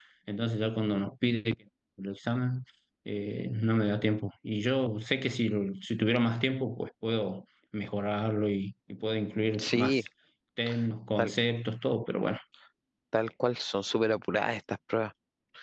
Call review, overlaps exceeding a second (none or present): none